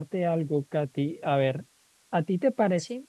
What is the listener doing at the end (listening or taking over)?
listening